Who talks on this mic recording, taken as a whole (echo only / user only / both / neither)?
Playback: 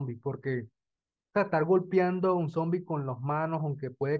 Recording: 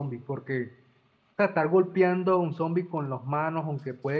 echo only